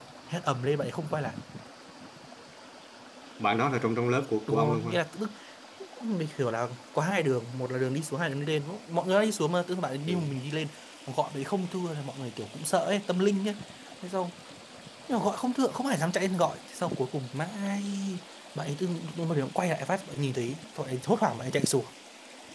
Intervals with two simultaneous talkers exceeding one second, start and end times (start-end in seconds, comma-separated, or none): none